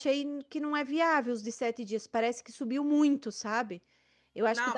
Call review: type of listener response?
taking over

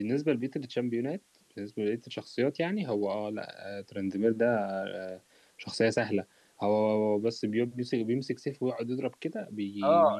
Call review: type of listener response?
taking over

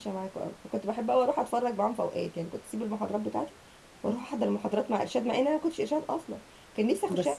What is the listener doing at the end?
taking over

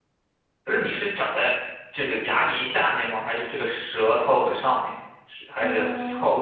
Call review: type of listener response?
taking over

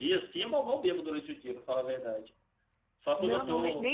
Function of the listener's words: taking over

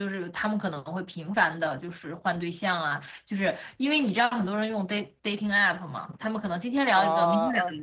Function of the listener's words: taking over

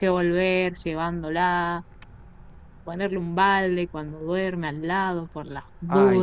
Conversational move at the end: taking over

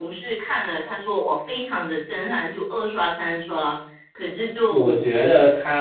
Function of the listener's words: taking over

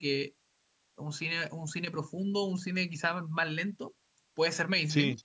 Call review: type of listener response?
listening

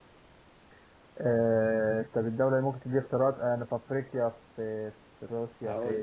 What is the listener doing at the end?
taking over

